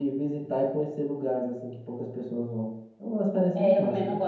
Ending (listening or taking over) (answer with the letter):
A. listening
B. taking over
B